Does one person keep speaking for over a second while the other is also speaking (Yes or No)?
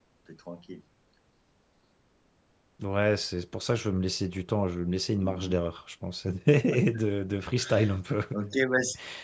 No